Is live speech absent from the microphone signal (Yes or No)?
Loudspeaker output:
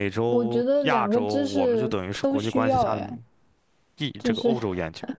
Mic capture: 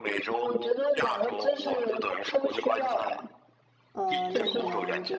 No